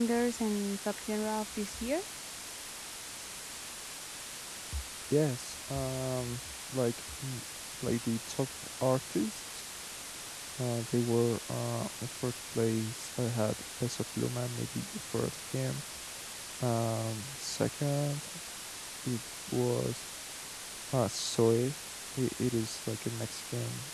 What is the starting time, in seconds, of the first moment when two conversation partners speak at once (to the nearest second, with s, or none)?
none